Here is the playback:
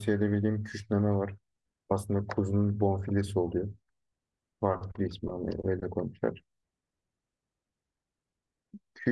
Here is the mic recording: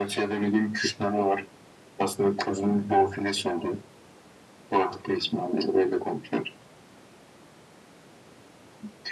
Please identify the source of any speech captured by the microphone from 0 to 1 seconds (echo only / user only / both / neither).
echo only